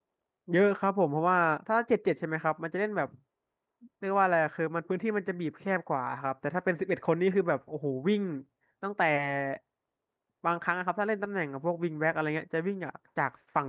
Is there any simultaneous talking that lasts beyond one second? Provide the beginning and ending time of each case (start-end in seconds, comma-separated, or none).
none